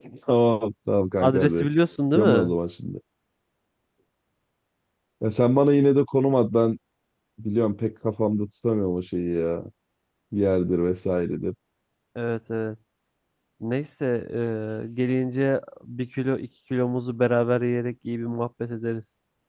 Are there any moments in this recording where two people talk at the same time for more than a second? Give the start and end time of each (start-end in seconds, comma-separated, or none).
none